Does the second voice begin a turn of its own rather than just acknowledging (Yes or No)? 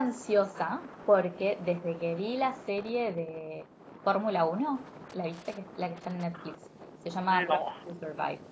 No